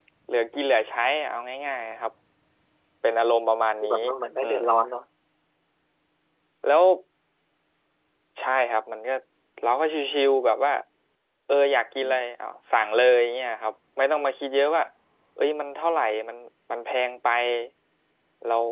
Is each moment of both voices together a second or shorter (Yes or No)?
Yes